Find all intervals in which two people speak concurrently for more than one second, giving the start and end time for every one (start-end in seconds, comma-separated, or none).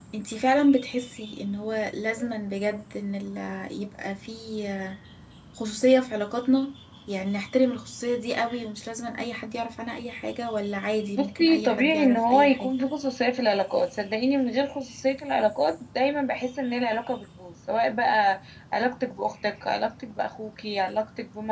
11.2-12.7